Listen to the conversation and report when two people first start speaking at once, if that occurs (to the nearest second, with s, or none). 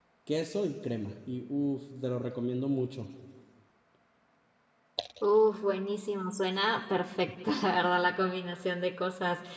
none